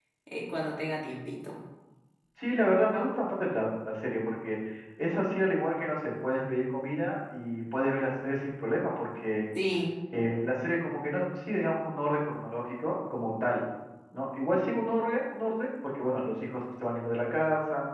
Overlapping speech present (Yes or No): No